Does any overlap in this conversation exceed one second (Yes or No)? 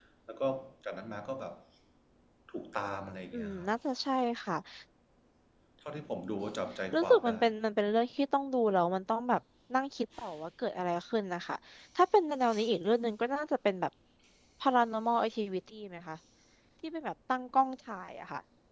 No